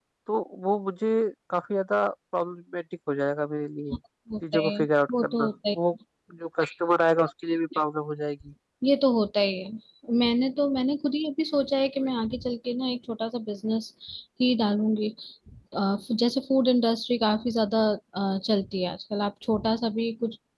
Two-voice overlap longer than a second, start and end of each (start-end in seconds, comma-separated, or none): 4.5-5.8